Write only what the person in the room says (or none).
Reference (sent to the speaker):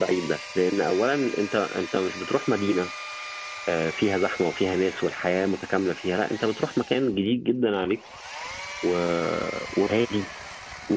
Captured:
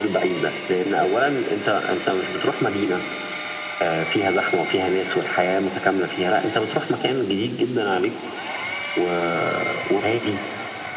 none